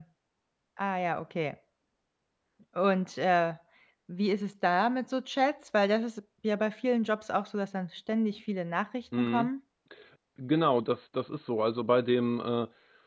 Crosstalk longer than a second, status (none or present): none